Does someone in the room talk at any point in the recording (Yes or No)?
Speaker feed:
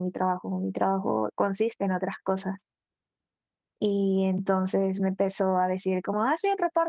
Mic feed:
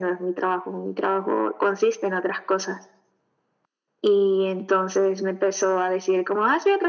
No